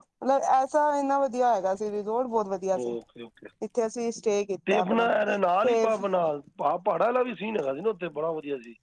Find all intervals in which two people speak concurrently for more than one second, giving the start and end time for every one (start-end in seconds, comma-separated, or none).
none